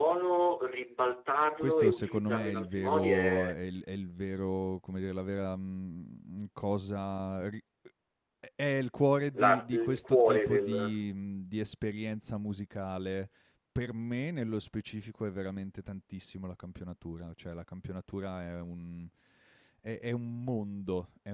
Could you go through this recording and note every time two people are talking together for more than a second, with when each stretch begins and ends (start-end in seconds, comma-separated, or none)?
1.6-3.6, 9.4-10.7